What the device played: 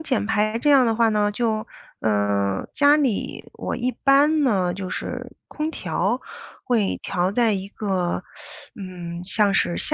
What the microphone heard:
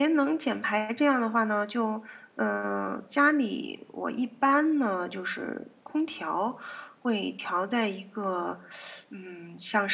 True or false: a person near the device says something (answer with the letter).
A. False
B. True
A